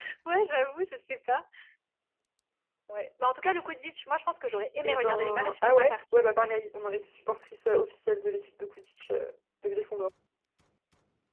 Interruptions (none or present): present